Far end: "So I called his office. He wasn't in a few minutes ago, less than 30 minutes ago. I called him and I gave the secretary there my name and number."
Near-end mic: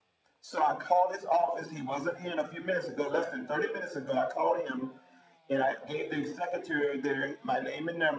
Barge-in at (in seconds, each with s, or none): none